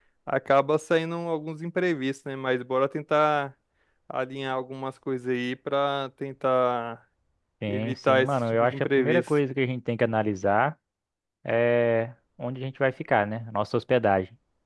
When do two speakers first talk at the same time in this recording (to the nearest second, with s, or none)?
8 s